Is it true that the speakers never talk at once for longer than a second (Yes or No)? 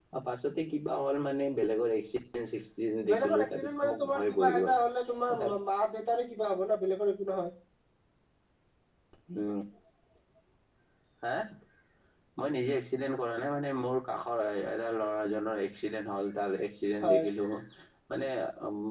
No